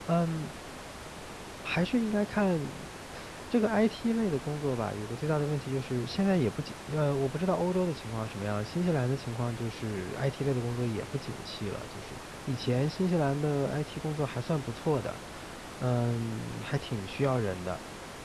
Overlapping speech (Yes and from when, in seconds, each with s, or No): No